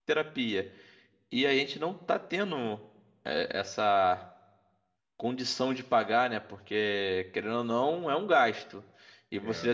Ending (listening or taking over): listening